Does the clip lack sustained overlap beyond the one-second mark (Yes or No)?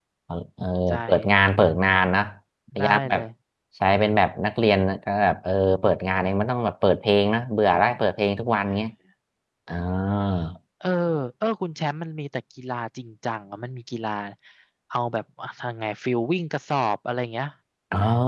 Yes